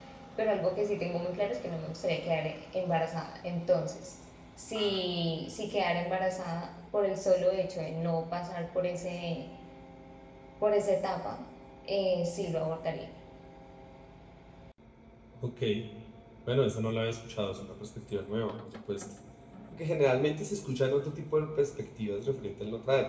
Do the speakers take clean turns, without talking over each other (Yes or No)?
Yes